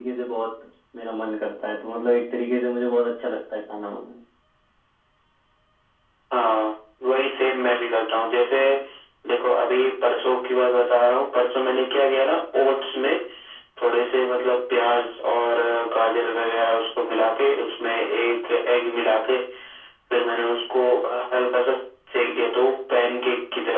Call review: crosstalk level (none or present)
none